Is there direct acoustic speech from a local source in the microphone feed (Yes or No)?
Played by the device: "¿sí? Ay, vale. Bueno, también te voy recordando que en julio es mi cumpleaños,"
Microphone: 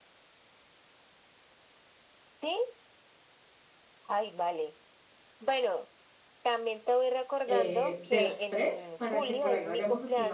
Yes